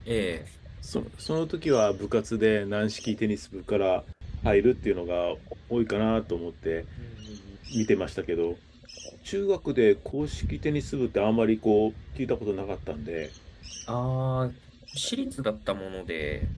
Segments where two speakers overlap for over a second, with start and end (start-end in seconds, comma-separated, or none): none